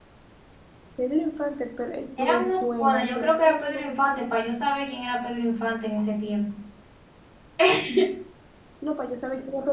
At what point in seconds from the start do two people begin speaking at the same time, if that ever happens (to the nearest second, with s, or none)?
2 s